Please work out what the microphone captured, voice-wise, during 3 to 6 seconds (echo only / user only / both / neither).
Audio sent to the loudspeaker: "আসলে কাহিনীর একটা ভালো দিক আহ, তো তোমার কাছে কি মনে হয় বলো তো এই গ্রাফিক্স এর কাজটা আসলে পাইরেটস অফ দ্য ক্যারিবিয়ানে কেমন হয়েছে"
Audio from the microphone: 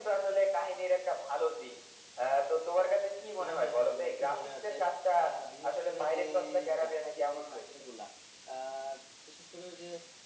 both